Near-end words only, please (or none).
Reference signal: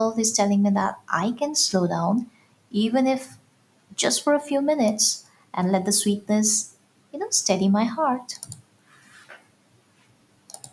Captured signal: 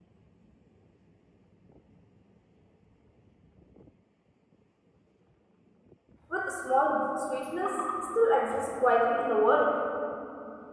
with small sweetness still exists quietly in the world.